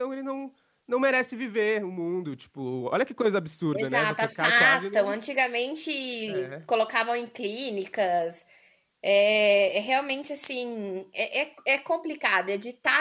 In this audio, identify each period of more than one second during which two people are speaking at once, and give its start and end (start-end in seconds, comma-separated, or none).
3.7-5.2